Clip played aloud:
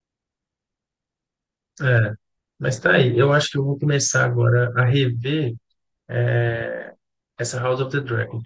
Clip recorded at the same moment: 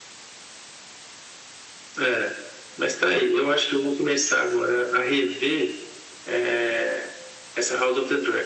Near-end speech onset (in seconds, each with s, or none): none